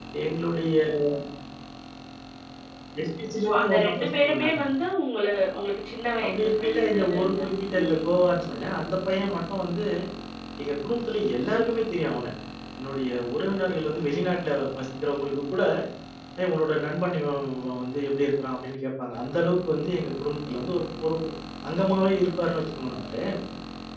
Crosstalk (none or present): present